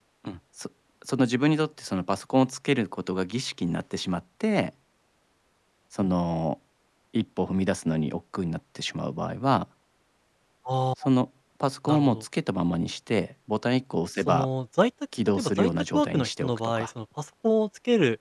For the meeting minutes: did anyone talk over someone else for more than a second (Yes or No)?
Yes